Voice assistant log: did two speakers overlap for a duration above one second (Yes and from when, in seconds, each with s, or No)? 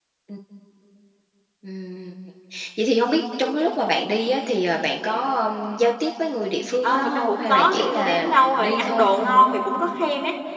Yes, from 6.8 s